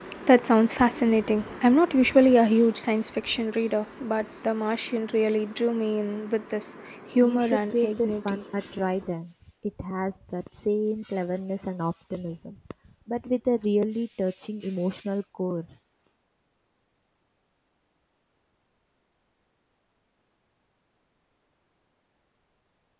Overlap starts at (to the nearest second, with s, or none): 7 s